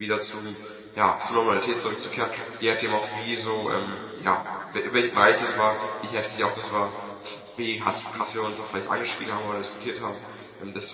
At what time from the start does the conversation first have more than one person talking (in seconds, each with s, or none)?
none